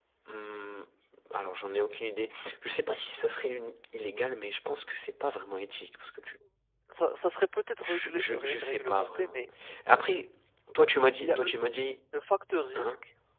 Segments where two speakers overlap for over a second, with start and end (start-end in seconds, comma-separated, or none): 7.8-9.4